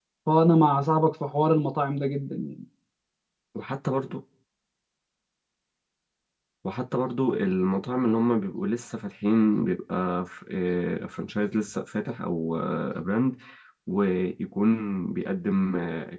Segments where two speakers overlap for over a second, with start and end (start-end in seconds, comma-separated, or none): none